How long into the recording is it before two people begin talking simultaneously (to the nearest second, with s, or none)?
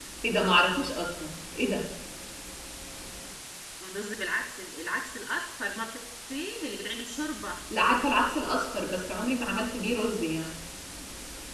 none